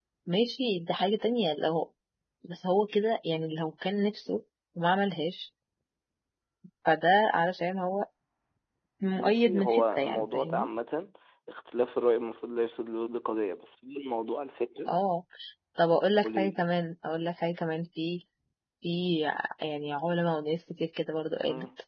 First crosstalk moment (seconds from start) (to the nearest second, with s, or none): 9 s